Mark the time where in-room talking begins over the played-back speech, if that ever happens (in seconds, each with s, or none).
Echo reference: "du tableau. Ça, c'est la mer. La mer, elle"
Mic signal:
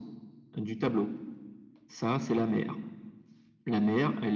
none